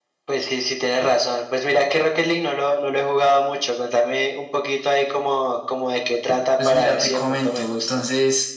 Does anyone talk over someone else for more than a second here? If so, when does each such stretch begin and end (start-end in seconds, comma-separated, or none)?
6.6-8.0